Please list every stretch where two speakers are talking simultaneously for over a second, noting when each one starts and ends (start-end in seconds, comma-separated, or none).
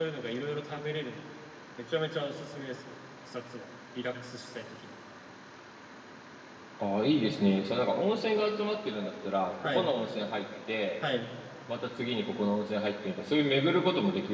none